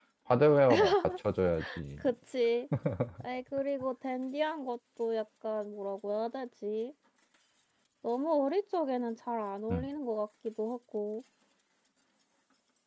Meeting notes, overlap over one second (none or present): none